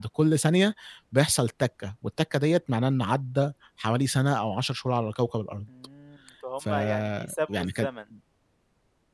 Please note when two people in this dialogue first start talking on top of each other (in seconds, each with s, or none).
6.6 s